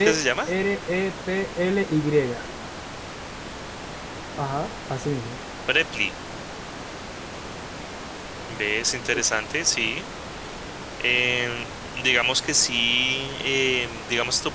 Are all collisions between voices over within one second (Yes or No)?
Yes